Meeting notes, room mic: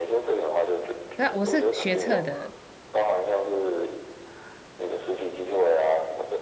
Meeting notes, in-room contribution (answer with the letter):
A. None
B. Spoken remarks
B